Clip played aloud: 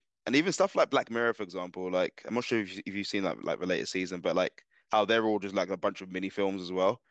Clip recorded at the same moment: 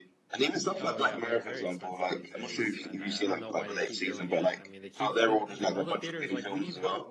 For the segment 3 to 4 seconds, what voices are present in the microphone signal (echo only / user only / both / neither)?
both